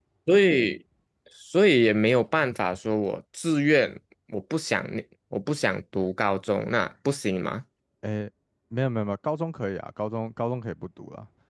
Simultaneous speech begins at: none

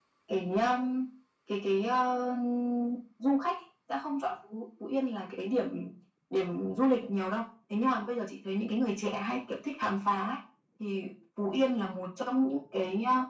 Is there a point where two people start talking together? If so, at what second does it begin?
none

